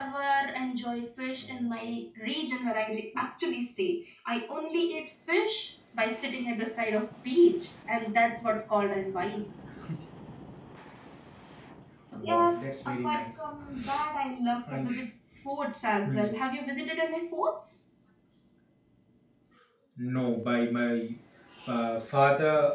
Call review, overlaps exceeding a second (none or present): none